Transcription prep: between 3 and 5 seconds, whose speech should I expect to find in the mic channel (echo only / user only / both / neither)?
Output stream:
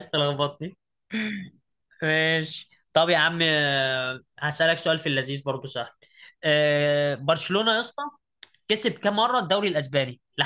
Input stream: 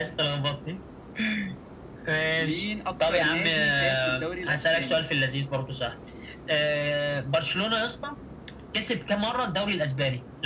both